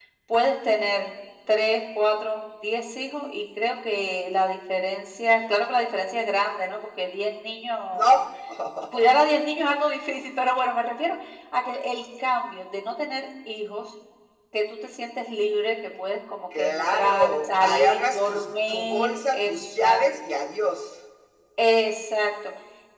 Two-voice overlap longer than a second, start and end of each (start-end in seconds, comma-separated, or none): 16.6-20.0